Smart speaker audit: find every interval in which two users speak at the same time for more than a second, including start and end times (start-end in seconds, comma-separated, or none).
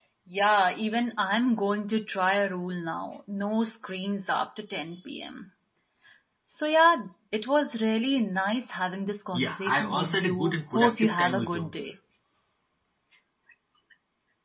9.3-11.8